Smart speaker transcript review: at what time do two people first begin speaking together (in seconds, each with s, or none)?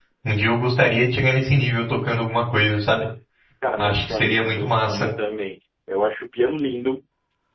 3.8 s